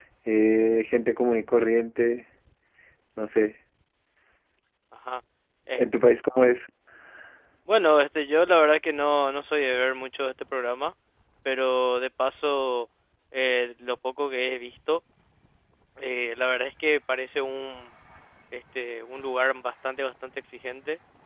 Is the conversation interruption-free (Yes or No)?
Yes